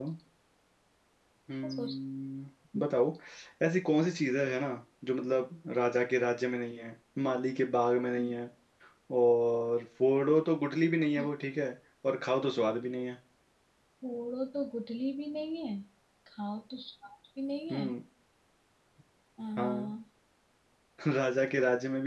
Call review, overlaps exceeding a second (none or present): none